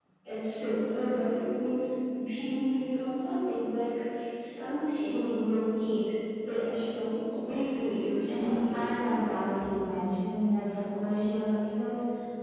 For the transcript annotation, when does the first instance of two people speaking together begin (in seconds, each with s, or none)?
8.3 s